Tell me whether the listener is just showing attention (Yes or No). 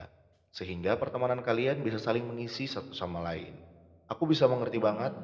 Yes